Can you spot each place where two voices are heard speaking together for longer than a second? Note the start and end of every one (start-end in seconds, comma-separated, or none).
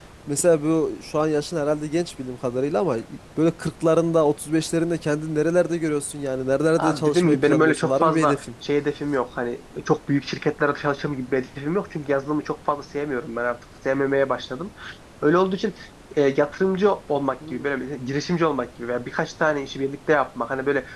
6.8-8.4